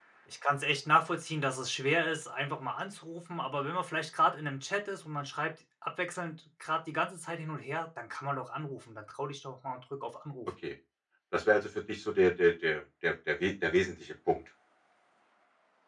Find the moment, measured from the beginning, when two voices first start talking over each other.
none

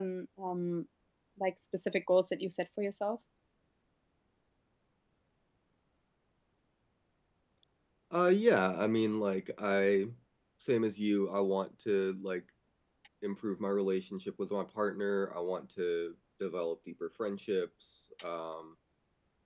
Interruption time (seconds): none

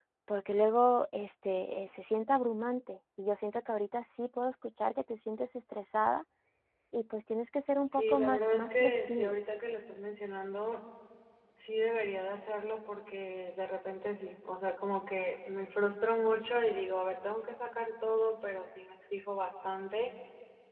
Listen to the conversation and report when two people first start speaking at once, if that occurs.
8.0 s

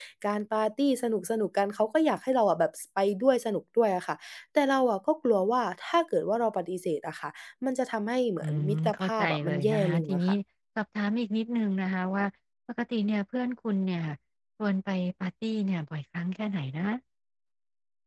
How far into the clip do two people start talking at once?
8.4 s

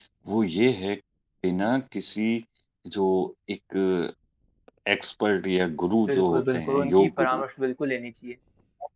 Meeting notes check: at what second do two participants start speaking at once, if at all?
6.0 s

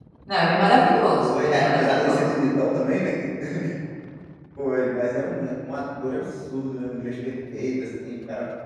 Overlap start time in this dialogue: 1.2 s

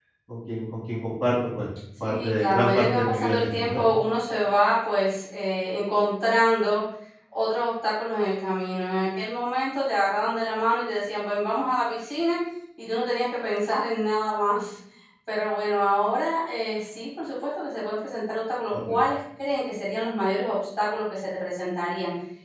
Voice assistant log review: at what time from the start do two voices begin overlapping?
2.0 s

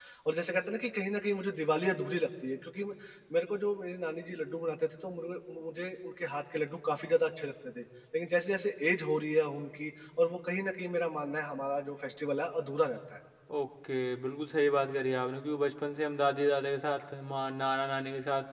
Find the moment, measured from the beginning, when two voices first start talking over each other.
none

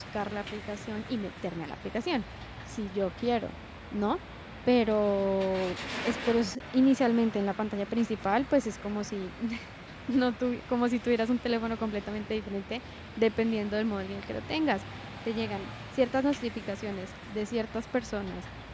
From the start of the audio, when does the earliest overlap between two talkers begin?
none

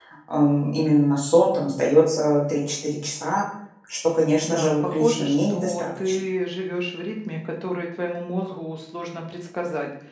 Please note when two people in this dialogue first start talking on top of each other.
4.4 s

